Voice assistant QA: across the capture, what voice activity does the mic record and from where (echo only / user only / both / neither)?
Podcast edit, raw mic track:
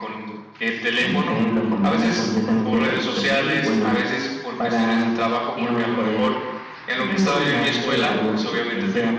echo only